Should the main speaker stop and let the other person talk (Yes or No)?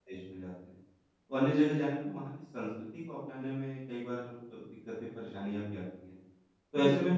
No